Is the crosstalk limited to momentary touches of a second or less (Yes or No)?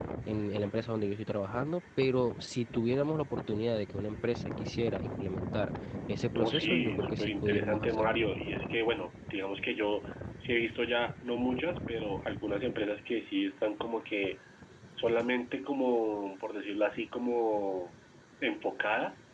No